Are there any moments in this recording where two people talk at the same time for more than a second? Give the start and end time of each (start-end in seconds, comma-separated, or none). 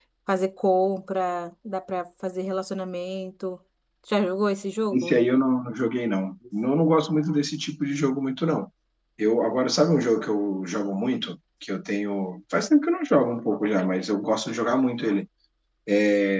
none